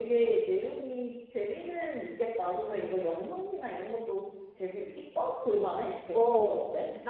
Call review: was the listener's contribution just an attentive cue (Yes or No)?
No